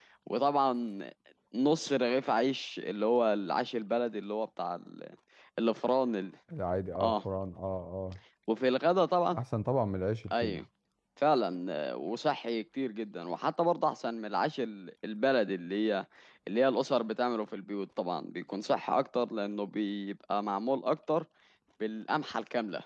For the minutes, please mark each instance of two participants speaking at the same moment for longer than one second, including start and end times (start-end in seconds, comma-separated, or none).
none